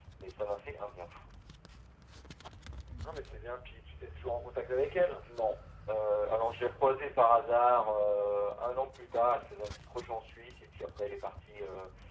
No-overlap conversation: Yes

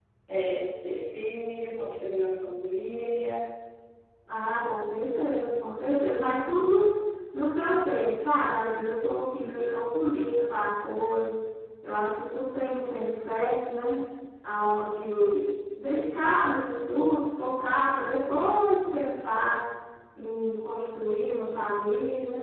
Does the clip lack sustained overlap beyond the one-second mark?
Yes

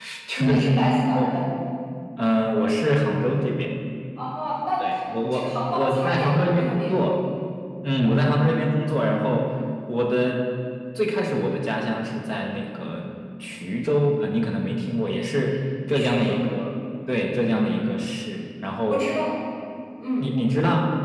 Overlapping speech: Yes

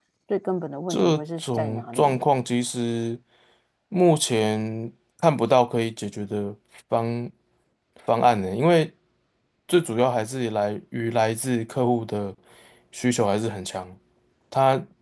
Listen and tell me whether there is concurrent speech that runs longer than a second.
Yes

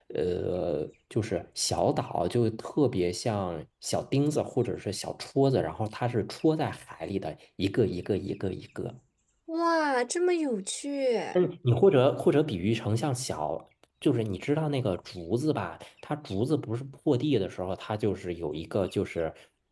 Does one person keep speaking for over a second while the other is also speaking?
No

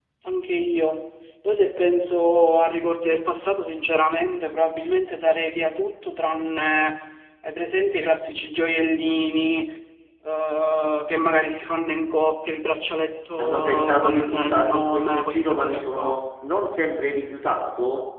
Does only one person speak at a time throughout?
No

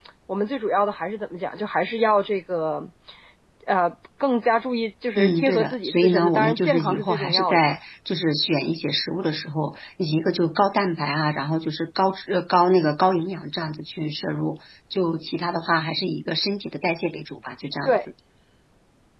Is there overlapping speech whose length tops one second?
Yes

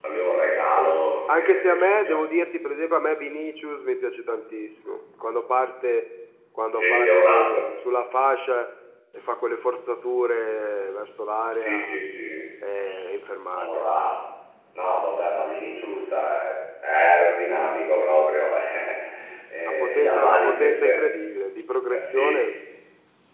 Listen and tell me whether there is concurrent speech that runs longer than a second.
Yes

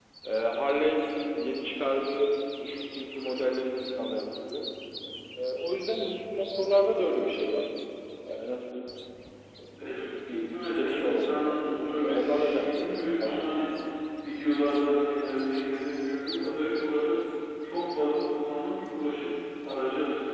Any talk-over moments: Yes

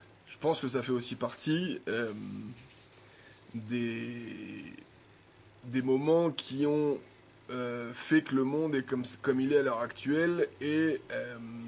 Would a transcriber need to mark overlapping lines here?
No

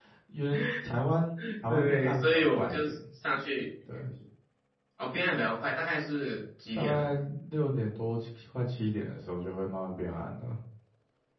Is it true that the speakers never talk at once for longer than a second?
No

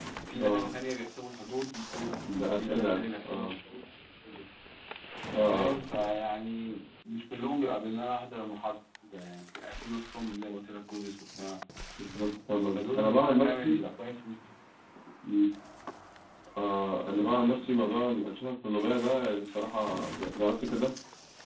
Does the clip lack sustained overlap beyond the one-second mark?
No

